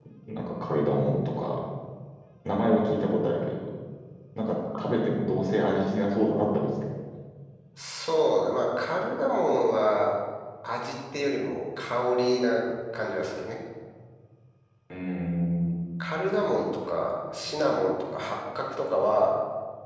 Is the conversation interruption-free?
Yes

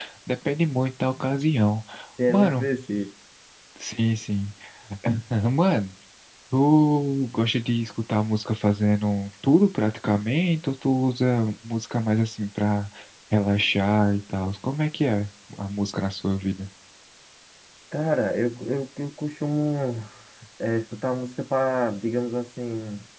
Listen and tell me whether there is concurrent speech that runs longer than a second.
No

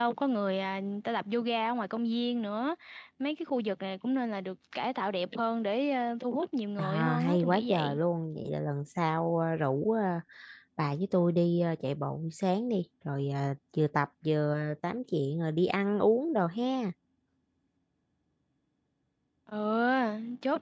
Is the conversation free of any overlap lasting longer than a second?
No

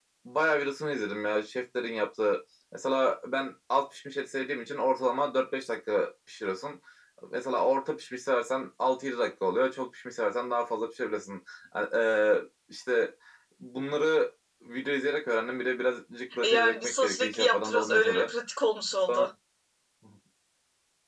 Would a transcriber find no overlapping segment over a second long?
No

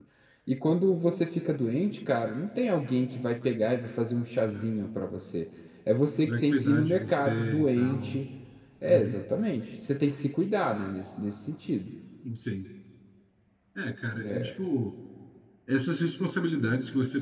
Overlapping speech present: Yes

